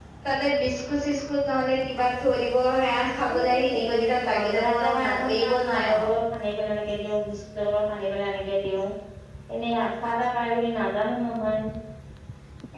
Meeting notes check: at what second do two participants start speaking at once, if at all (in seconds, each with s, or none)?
3.2 s